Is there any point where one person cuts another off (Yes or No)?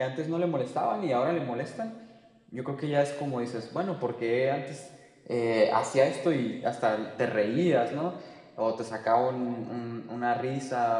No